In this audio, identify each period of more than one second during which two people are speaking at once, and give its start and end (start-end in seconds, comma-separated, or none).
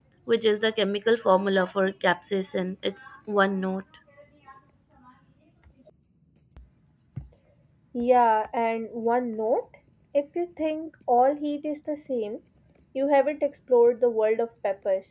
none